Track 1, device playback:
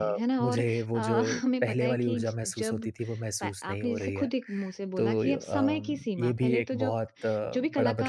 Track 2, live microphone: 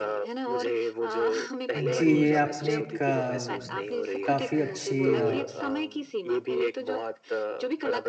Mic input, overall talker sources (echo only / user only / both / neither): both